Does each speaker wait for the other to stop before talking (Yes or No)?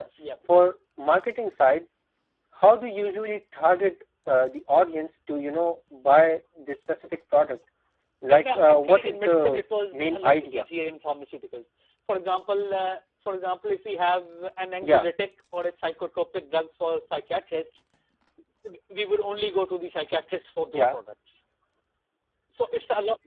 No